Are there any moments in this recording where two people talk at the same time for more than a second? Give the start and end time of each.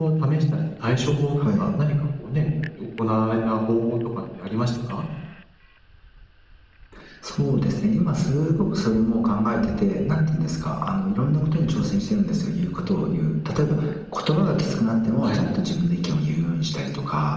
none

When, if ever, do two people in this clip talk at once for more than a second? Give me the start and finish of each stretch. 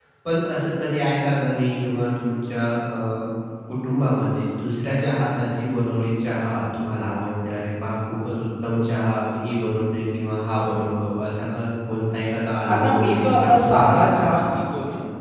12.7-14.4

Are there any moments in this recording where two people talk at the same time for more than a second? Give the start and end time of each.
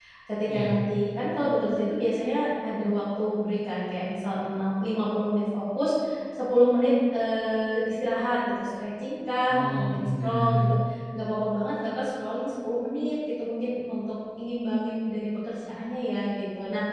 9.5-10.7

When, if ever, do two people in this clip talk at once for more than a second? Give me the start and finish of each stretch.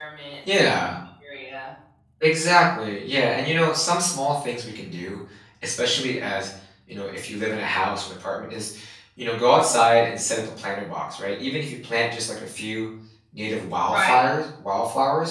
none

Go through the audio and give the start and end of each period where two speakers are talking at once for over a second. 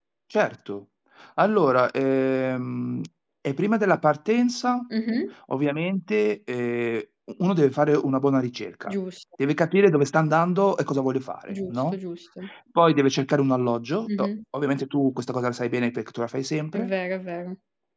none

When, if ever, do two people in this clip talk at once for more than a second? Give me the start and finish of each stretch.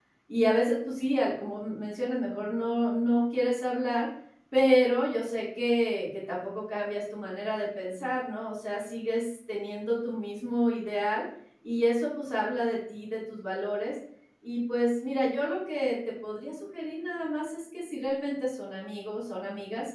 none

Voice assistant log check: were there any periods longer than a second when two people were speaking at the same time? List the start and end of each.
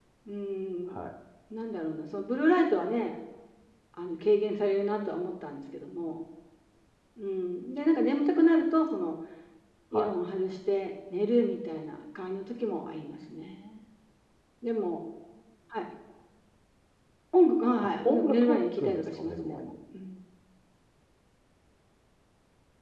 18.0-19.7

